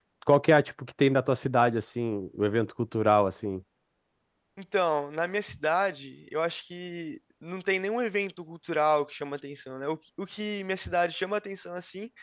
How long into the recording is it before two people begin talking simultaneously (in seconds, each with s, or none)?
none